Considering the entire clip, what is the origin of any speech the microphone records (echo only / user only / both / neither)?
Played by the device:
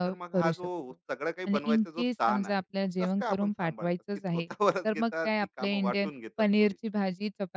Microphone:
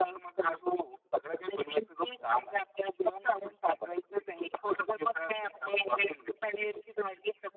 echo only